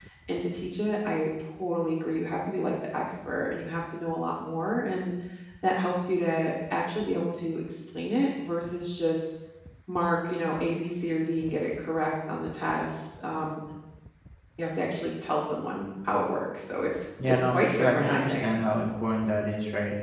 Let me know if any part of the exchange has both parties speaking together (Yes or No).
Yes